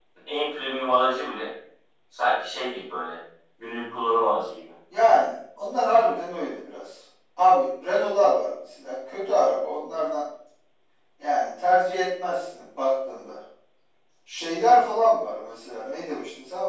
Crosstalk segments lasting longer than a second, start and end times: none

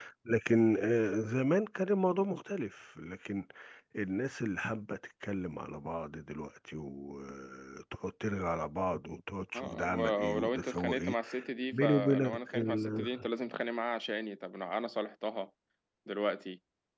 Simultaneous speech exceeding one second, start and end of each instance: 9.5-11.2, 11.7-13.1

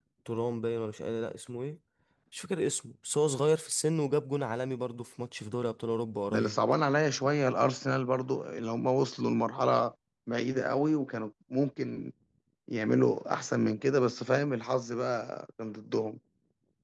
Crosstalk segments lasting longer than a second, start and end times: none

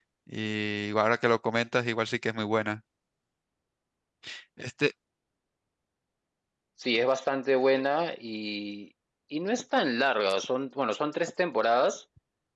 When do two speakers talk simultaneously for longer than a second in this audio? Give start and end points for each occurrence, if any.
none

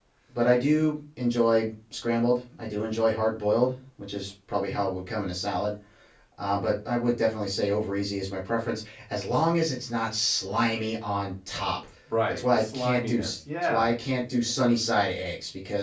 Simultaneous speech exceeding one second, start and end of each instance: 12.3-13.9

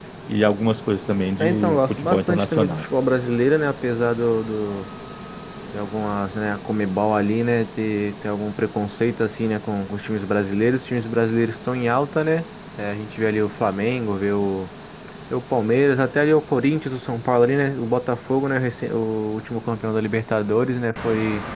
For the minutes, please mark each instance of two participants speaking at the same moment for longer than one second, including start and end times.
1.4-2.9

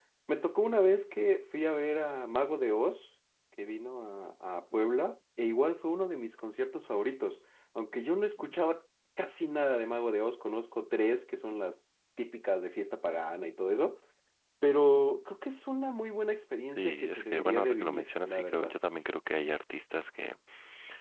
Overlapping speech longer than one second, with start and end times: 16.7-18.7

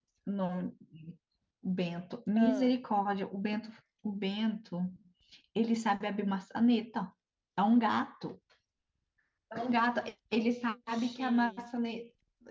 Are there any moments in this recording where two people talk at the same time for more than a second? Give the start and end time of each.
10.4-11.7

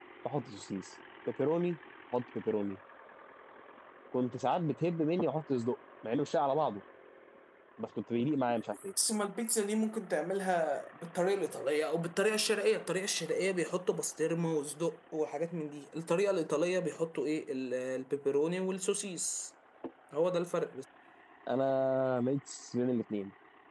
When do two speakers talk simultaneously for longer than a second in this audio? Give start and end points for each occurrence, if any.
none

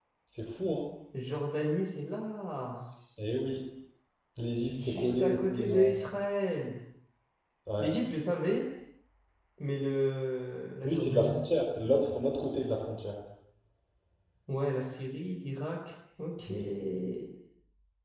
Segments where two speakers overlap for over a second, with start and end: 4.7-5.9

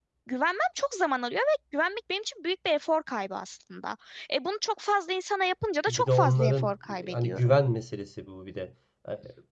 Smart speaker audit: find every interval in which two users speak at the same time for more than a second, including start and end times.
5.9-7.6

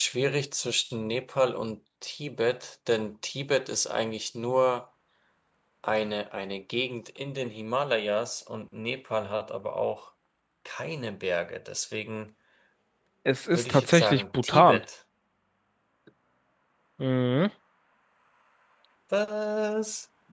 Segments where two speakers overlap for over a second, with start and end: 13.6-14.8

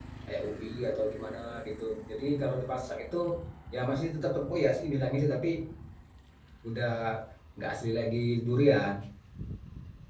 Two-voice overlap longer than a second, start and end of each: none

